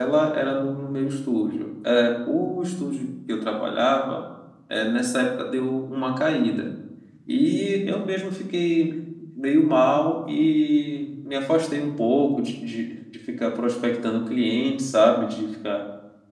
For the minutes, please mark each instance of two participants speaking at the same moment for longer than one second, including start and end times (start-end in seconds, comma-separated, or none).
none